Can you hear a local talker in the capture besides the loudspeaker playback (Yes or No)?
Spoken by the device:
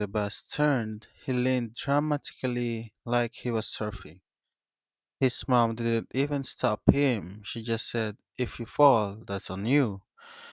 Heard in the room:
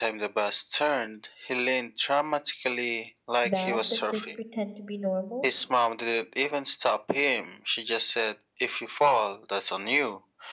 Yes